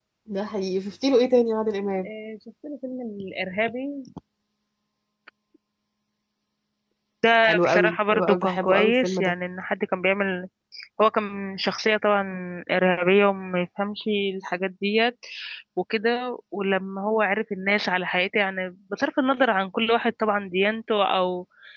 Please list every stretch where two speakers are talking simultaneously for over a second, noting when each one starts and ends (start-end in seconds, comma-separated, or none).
7.4-9.3